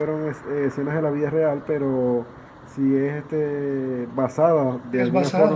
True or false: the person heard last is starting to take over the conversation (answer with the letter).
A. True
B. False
B